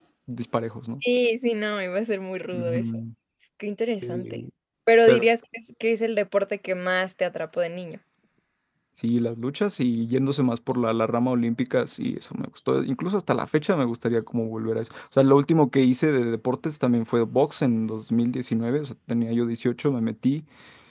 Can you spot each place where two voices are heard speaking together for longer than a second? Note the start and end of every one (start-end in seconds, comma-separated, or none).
none